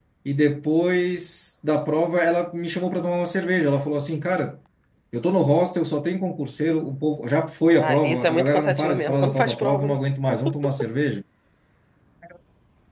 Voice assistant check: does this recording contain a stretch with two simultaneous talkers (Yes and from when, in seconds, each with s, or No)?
Yes, from 7.8 s